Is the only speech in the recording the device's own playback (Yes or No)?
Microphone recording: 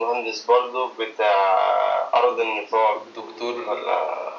No